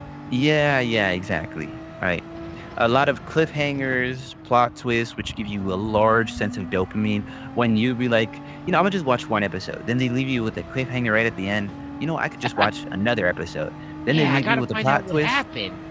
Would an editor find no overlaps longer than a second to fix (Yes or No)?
No